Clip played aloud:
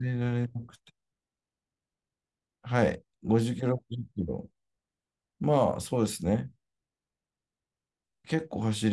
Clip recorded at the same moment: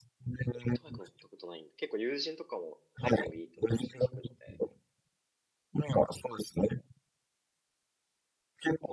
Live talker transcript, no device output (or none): オートバイク乗ったことないんで、結構友人とかもサイクリングいいってお話を聞くので。